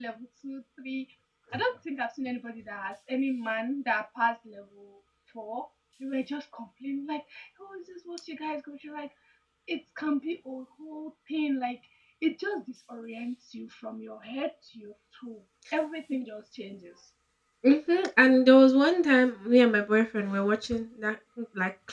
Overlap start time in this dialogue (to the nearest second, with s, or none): none